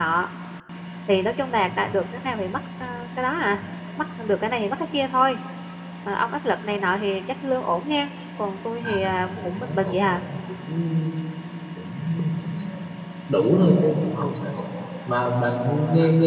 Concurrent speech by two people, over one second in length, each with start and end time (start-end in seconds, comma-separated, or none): 8.8-10.2